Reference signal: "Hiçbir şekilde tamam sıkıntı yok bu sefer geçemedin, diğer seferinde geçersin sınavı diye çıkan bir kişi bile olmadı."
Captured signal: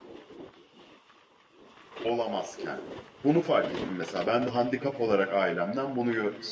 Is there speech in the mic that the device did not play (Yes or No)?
Yes